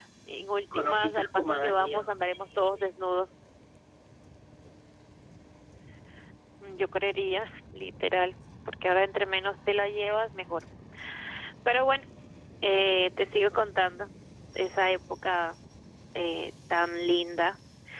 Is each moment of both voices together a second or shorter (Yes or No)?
No